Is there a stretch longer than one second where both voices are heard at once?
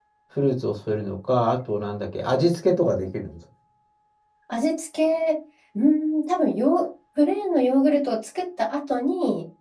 No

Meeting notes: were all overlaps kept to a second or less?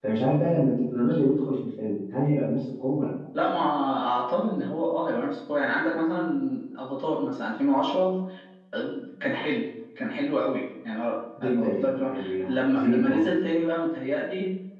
No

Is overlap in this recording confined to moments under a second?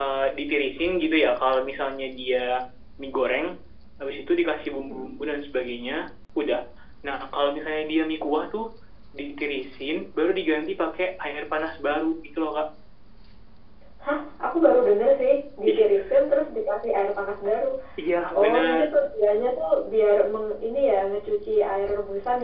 Yes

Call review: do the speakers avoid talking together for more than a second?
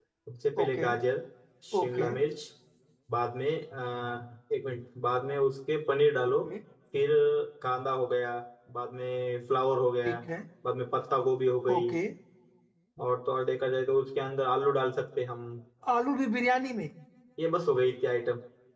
Yes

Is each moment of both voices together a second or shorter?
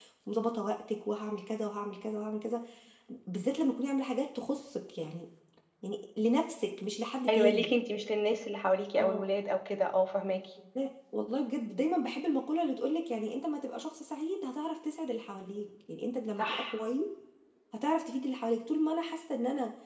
Yes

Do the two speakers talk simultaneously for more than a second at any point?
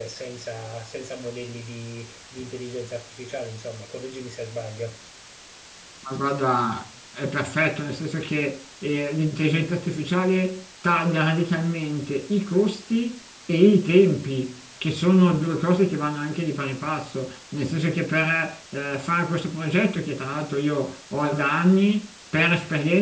No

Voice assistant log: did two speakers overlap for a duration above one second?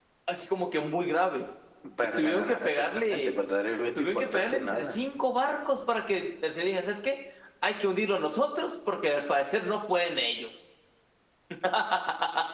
Yes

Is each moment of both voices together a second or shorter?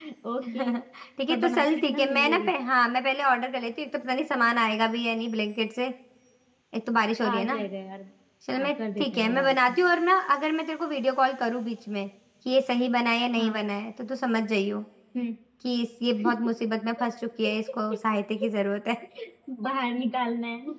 No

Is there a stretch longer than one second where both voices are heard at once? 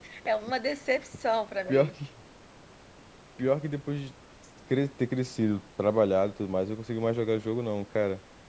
No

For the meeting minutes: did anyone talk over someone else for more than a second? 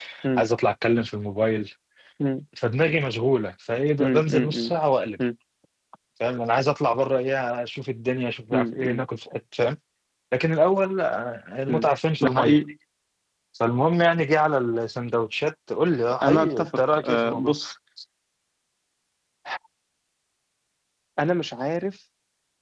Yes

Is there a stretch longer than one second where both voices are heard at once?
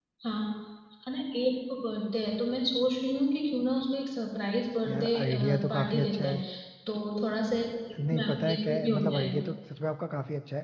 Yes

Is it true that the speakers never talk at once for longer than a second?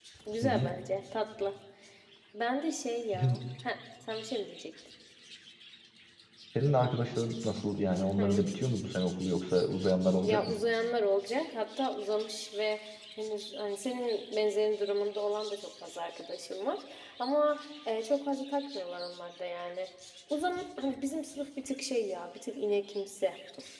Yes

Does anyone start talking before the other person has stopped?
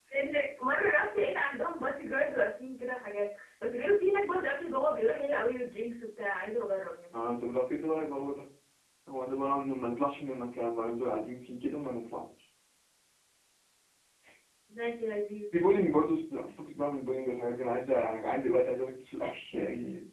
No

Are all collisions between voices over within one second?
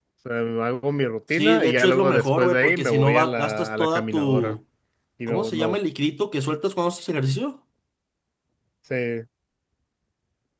No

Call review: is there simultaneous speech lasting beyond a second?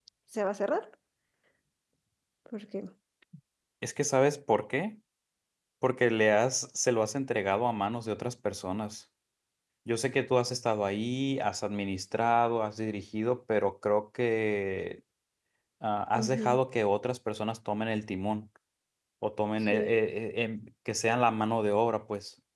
No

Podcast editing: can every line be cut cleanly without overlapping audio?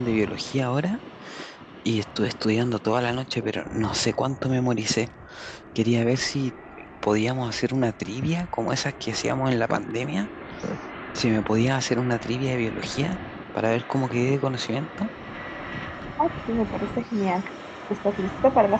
Yes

